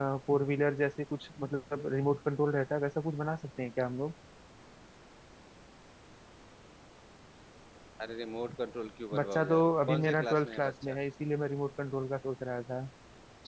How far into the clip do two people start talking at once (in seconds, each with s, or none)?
9.1 s